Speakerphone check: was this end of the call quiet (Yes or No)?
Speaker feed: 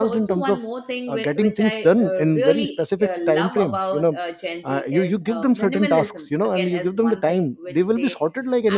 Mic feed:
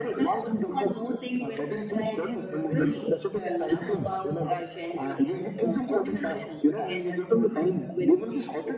Yes